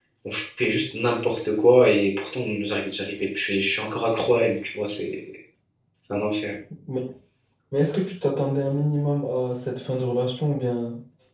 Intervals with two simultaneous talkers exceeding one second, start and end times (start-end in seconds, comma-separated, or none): none